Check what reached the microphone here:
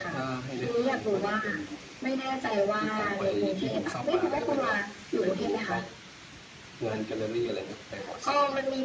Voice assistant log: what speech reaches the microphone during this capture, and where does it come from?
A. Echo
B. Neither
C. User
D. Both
A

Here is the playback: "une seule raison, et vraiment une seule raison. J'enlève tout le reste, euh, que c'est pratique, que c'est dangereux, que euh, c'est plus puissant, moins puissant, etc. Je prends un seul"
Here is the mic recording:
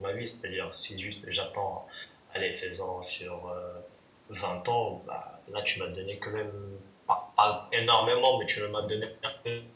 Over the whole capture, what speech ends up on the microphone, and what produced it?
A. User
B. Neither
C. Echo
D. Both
A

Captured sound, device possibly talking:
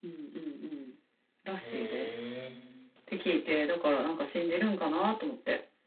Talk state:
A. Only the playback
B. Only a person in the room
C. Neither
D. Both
D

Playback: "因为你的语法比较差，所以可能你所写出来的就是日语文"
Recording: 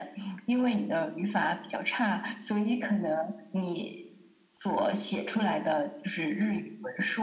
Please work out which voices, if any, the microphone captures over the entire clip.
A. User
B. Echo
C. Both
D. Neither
B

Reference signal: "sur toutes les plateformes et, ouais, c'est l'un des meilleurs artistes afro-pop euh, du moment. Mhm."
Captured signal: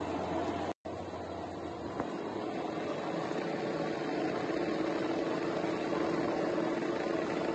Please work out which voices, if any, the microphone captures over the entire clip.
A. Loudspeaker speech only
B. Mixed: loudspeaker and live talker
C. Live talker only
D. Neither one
D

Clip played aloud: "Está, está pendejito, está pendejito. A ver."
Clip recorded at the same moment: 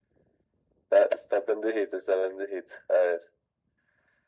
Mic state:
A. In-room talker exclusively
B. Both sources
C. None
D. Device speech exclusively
D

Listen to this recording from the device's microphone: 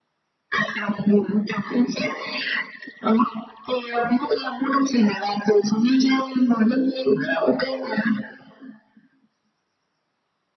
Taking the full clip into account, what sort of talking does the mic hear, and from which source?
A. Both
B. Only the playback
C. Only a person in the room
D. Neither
B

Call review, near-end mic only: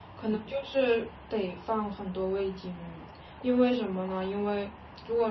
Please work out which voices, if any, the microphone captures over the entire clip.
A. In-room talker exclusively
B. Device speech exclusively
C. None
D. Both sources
B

